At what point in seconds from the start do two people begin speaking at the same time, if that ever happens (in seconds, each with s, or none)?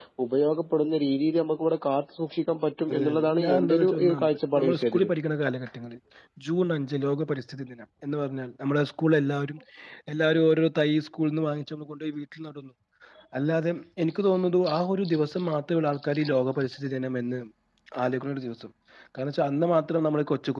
2.9 s